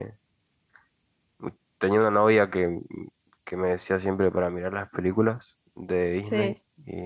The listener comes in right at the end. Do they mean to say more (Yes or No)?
No